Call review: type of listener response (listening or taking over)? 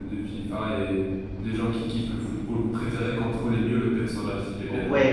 taking over